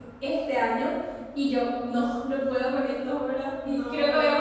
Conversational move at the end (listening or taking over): listening